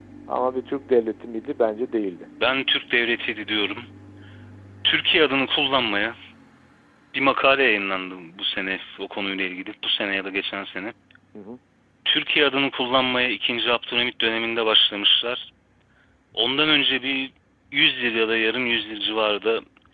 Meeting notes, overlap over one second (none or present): none